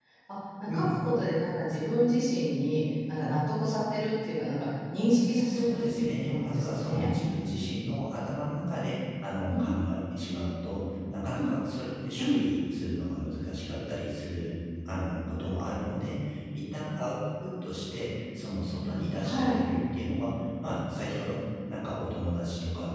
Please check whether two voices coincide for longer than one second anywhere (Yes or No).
Yes